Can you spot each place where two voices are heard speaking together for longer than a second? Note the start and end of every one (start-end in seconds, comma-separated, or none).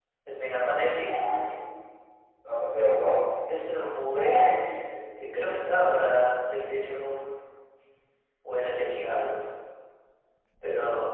none